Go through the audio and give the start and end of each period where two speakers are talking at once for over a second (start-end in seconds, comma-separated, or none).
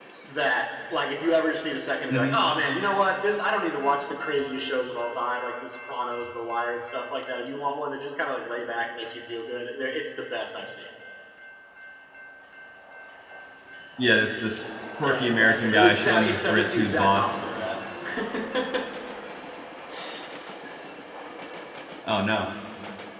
15.0-17.5